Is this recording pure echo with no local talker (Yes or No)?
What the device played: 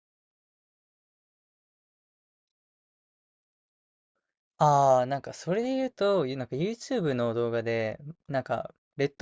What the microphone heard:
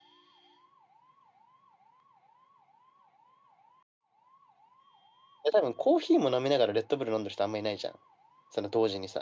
No